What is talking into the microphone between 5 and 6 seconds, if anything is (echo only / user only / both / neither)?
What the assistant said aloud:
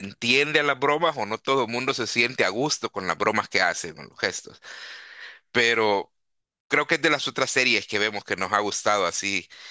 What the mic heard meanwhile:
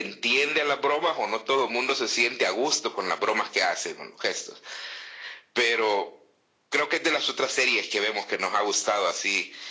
echo only